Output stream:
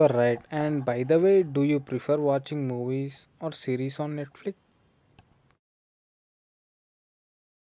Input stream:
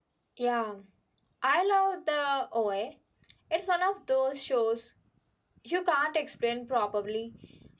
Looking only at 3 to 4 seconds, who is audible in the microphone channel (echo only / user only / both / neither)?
user only